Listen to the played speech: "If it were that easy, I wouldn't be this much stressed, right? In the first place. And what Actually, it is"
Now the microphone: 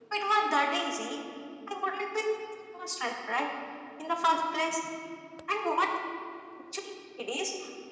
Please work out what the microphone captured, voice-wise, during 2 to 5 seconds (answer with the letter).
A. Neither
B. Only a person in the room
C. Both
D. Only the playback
D